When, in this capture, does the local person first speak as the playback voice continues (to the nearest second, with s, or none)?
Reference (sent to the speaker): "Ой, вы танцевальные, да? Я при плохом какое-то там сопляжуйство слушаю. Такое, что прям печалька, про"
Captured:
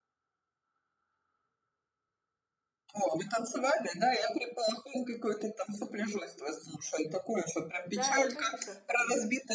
8 s